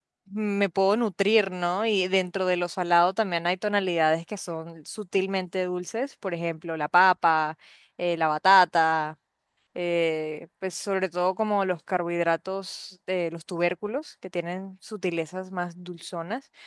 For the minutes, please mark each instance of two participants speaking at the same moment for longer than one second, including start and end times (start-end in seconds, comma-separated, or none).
none